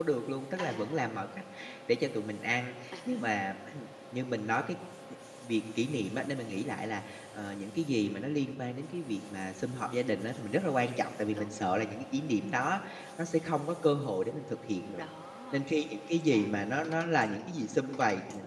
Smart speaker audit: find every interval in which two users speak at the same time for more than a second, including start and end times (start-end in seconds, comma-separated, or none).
none